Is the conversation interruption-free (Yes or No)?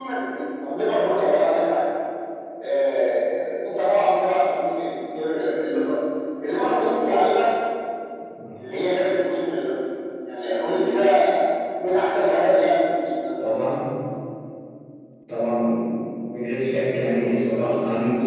Yes